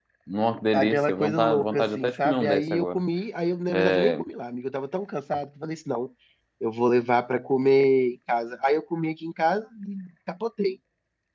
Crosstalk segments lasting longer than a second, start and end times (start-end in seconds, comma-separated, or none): 0.7-3.0